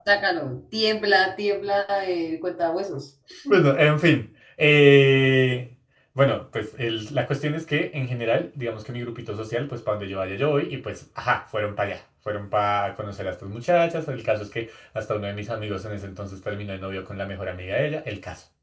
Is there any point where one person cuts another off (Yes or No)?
No